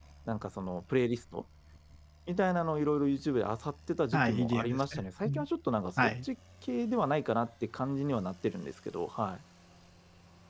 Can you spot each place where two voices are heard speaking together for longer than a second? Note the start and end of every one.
4.1-5.4

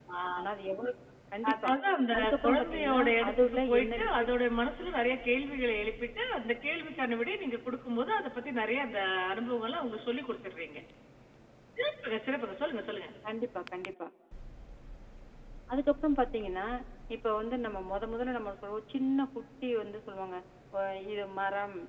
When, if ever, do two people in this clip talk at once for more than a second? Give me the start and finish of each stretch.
2.2-4.2

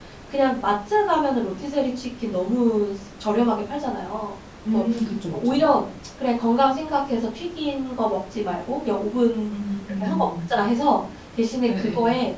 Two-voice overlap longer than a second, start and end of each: none

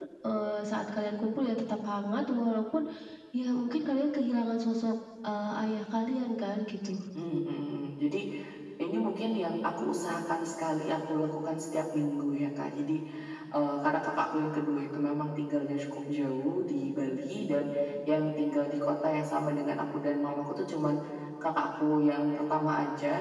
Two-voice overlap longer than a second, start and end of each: none

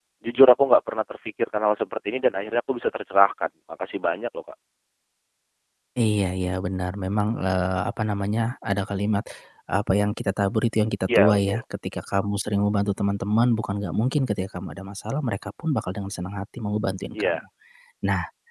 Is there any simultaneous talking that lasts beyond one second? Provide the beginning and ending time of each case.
none

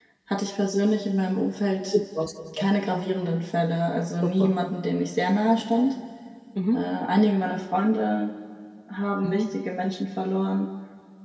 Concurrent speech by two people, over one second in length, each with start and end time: none

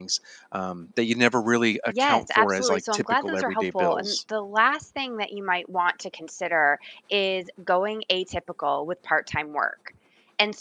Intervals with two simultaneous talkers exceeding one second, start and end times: 1.9-4.2

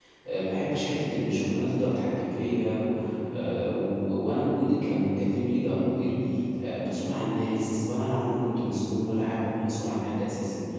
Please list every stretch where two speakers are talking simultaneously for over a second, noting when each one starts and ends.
none

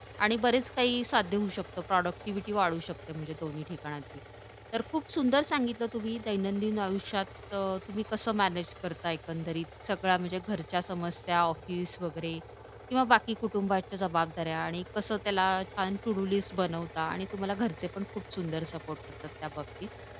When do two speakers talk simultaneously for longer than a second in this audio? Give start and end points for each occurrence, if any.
none

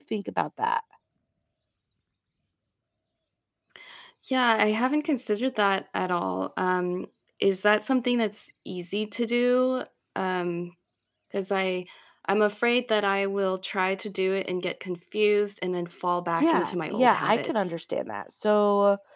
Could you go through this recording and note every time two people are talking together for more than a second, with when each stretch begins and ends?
16.4-17.7

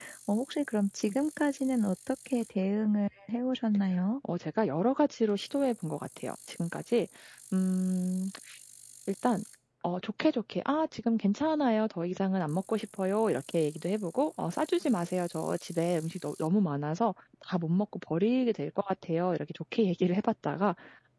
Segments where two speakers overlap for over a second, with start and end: none

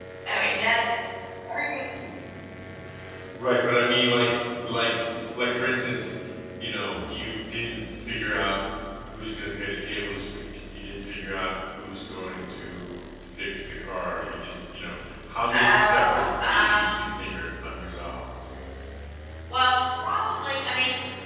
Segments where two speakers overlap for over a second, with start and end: 15.5-17.0

